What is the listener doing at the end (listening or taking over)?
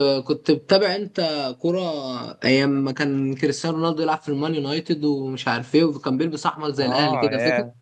taking over